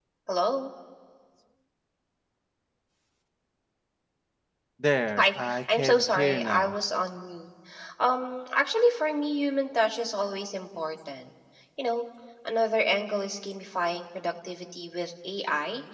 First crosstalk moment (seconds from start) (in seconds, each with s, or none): 5.2 s